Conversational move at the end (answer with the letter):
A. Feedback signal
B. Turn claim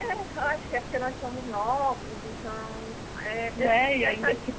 B